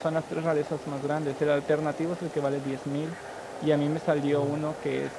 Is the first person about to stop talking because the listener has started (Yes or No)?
No